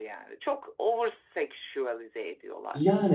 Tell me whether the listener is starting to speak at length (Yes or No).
Yes